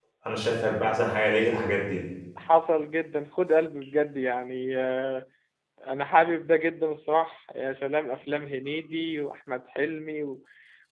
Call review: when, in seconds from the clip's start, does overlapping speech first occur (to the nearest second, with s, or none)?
none